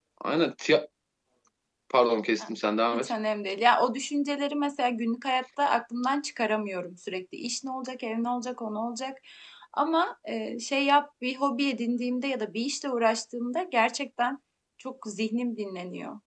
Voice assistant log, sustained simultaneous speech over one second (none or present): none